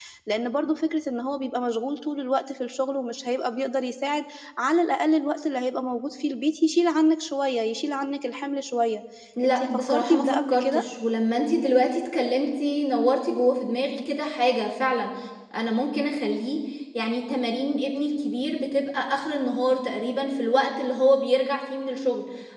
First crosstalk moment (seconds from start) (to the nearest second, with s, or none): 9 s